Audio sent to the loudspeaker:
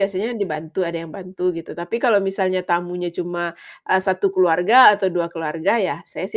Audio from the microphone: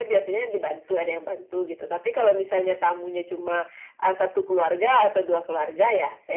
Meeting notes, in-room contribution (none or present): none